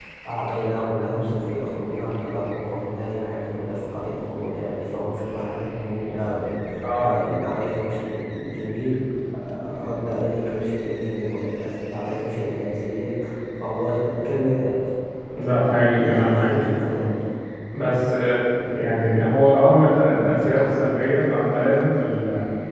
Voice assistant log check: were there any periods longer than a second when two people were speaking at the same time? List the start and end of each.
15.4-17.1

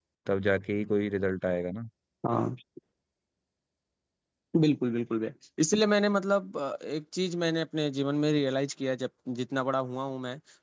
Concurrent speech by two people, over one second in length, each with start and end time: none

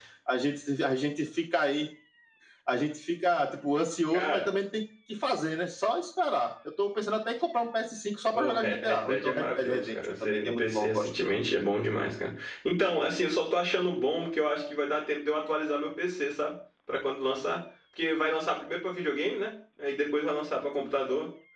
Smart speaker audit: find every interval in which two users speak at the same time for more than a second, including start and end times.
8.3-11.1

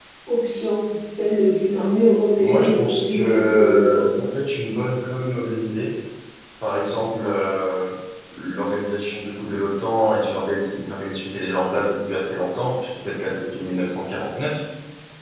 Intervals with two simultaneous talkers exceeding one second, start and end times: 2.4-4.1

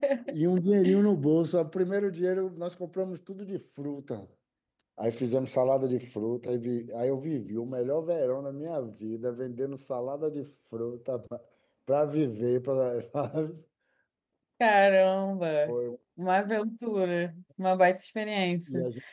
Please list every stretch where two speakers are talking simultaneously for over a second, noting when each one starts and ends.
none

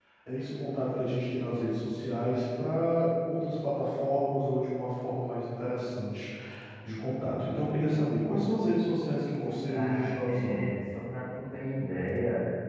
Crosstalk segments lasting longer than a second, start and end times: 9.4-10.8

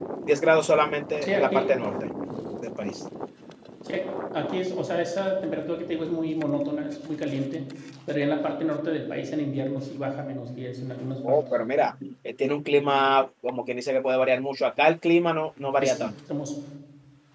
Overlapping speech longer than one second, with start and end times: none

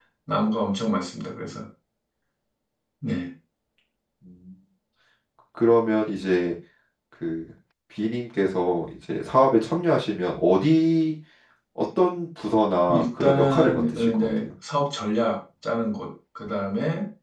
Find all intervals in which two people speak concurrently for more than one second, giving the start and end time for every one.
12.9-14.5

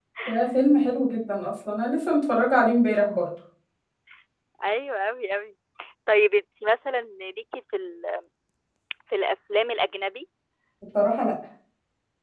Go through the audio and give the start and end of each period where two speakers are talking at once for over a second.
none

